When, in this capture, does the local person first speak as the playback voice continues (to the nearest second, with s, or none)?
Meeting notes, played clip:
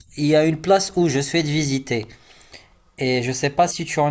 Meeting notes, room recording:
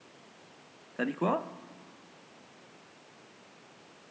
1 s